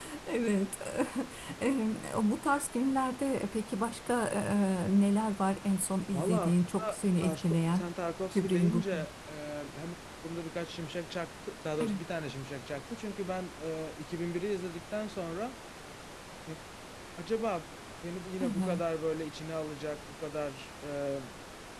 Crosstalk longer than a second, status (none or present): present